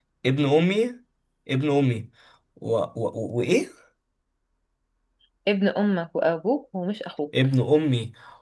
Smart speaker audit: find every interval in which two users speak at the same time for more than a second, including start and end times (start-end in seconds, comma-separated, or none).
none